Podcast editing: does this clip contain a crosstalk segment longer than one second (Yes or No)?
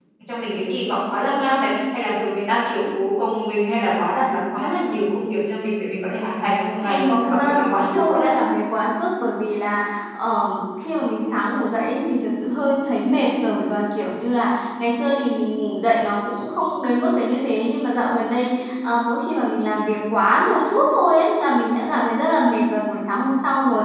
Yes